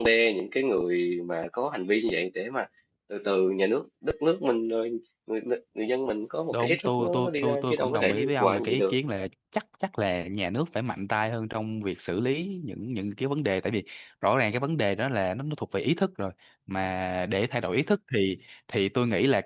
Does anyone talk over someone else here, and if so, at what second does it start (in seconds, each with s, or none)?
6.5 s